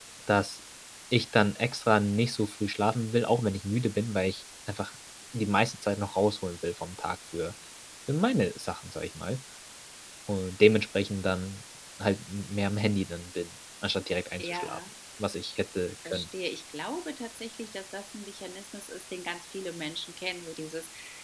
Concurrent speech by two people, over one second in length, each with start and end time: none

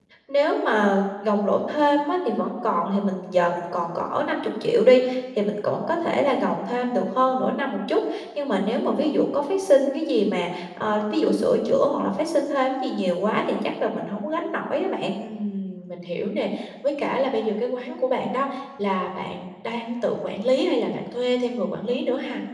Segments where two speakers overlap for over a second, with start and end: none

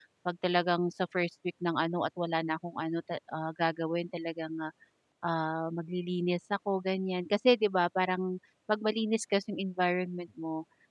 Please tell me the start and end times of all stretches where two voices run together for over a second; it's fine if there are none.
none

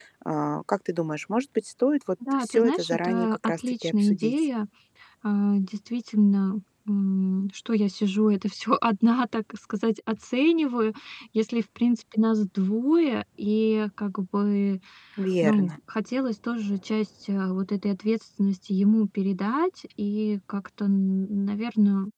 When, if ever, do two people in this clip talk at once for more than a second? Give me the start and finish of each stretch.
2.4-4.3

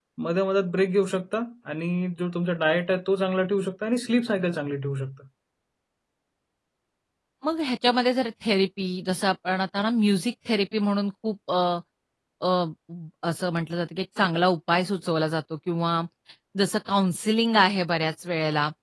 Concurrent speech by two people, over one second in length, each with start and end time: none

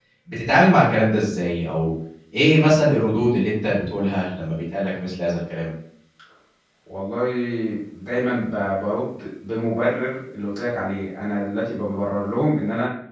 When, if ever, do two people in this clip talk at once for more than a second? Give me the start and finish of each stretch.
none

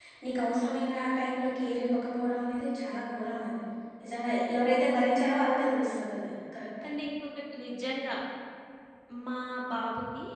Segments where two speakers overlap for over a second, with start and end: none

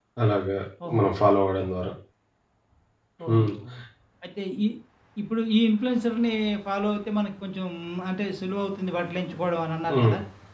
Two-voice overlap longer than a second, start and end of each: none

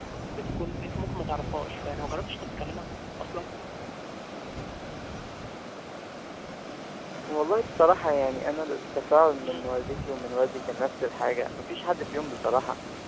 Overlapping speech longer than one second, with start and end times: none

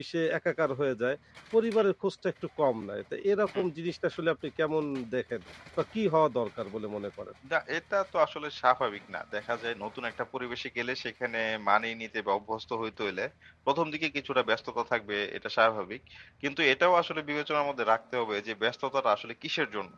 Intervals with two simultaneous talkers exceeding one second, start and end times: none

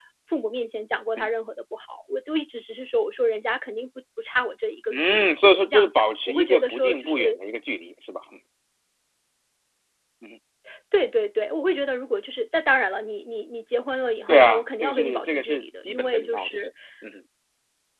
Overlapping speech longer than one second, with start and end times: 4.9-7.4, 14.3-16.6

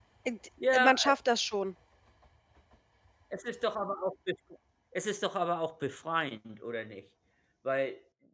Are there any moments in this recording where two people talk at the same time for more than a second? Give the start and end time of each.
none

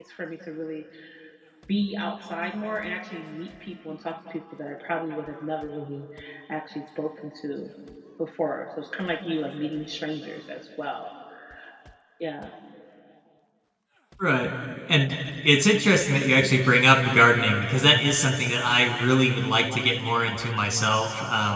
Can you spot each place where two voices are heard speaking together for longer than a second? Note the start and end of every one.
none

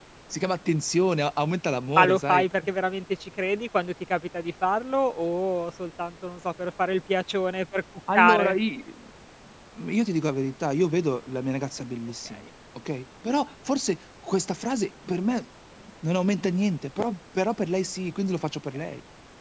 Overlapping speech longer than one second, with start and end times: none

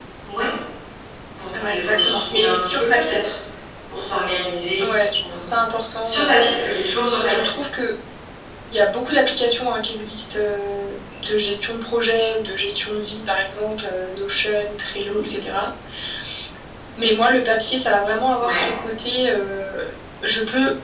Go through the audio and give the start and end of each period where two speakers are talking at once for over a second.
1.6-3.2

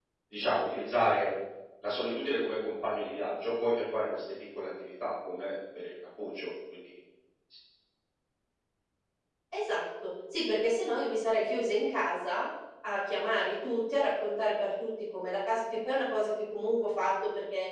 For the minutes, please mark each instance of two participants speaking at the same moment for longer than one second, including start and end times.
none

